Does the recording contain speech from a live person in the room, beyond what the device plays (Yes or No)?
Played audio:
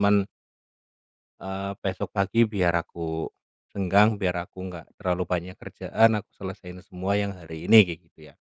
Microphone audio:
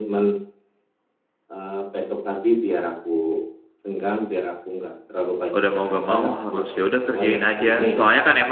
Yes